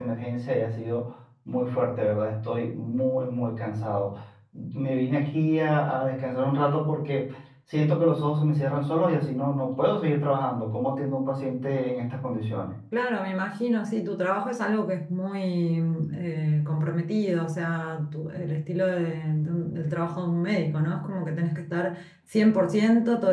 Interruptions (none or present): none